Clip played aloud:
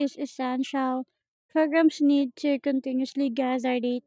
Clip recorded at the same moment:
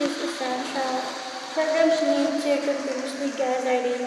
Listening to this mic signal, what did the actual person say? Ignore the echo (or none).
none